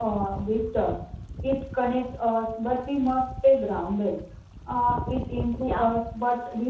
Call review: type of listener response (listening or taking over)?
listening